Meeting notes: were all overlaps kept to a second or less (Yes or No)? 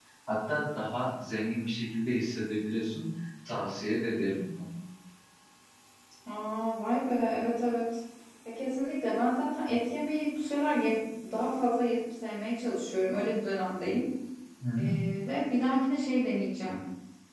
Yes